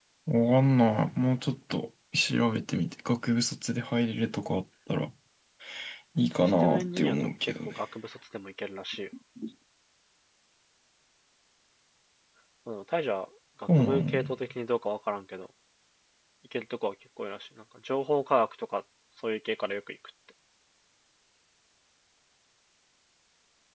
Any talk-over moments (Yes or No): Yes